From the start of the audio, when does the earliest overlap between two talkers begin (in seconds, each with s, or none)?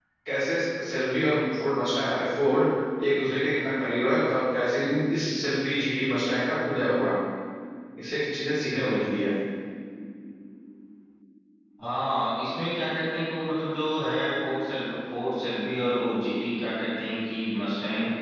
none